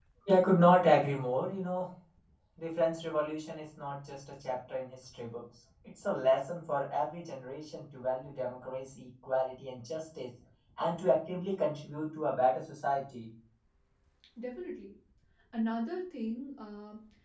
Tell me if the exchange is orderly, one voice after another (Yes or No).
Yes